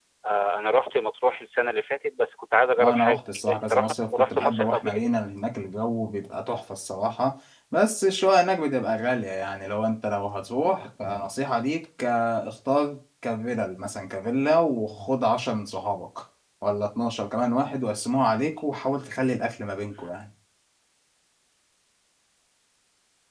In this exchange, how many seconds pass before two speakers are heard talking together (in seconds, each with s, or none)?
2.8 s